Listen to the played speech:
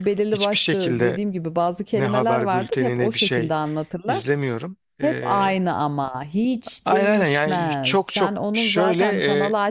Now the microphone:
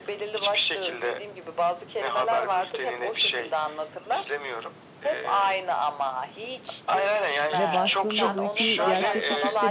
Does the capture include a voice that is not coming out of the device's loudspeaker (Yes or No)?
Yes